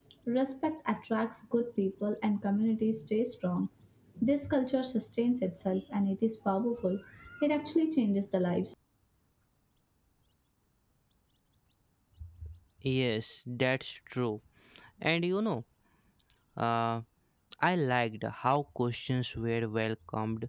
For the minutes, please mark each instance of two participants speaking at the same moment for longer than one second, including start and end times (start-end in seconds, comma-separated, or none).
none